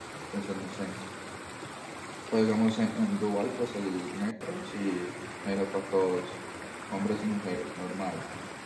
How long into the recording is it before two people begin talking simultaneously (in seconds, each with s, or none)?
none